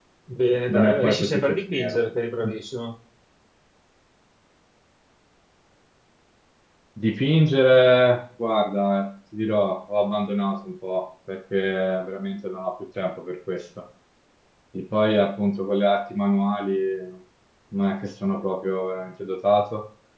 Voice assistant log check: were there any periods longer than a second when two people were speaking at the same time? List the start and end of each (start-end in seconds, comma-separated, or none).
0.7-2.0